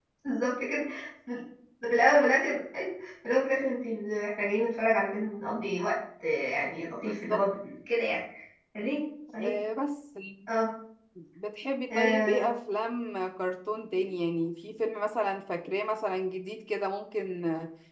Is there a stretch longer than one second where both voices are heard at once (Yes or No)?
No